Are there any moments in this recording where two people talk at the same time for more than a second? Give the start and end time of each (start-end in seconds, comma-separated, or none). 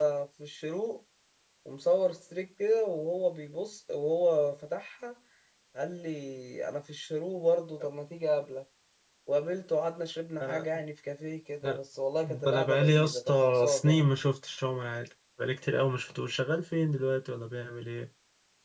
12.5-14.1